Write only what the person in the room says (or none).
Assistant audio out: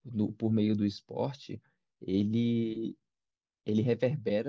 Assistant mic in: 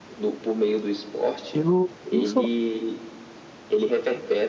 eu não sou.